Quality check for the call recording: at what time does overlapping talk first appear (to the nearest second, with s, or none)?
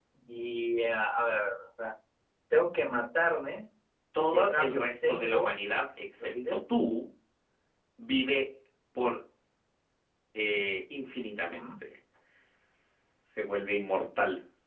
4 s